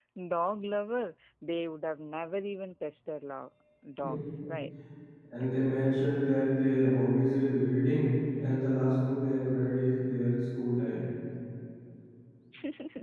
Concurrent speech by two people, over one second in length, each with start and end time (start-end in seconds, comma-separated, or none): none